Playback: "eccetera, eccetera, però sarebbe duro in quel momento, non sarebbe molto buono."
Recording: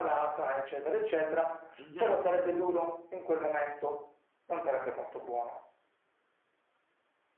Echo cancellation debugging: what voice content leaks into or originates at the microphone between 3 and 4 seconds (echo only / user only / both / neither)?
echo only